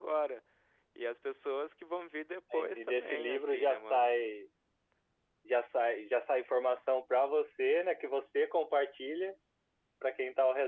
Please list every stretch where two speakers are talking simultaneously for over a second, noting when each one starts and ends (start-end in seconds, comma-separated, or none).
2.6-4.1